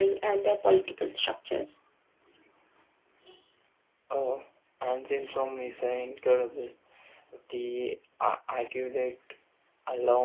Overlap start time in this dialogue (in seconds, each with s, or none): none